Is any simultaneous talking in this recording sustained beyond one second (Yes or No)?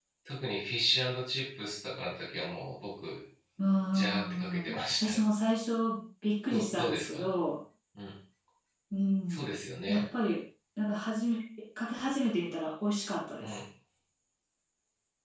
Yes